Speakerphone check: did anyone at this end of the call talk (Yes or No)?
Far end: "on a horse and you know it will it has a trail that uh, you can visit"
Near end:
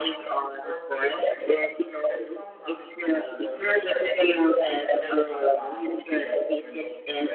Yes